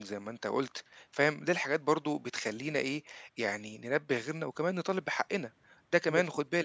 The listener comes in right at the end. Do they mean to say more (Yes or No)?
No